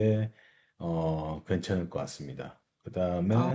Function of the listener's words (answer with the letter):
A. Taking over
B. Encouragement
B